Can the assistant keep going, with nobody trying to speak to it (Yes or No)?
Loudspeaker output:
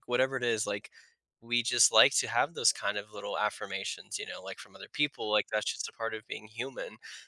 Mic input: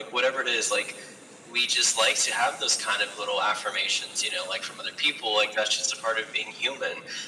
Yes